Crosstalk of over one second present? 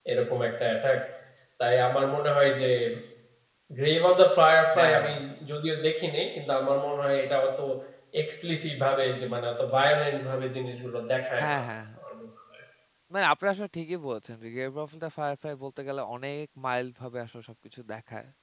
No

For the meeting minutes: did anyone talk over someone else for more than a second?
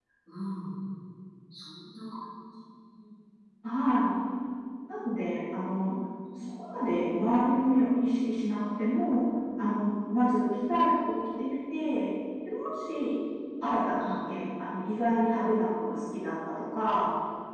No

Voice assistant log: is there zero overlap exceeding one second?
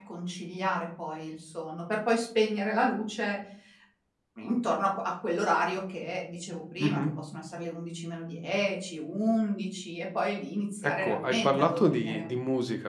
No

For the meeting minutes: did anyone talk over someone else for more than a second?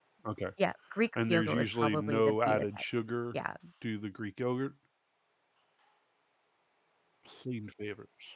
Yes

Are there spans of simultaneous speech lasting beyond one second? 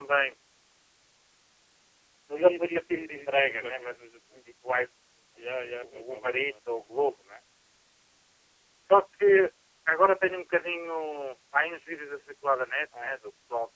Yes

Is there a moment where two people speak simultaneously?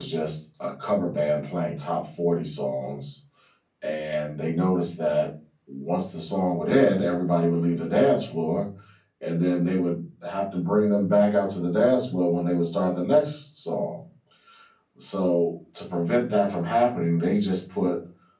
No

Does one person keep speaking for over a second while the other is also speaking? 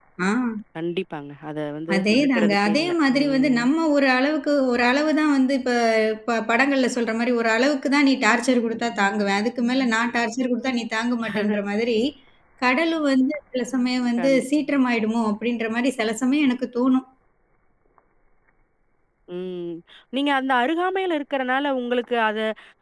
Yes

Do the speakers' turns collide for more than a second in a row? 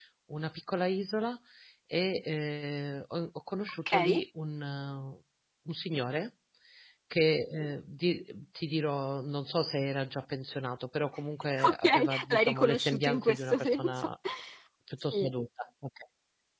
Yes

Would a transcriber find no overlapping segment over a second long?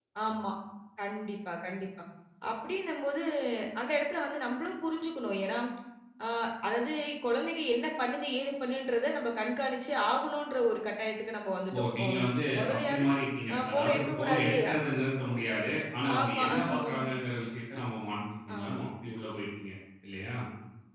No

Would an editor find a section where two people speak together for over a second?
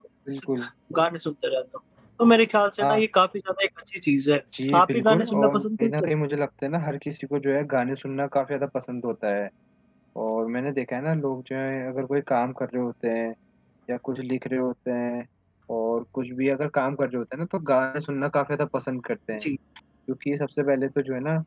Yes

